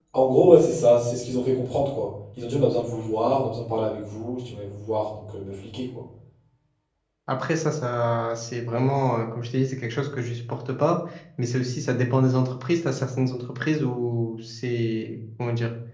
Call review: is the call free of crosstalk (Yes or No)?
Yes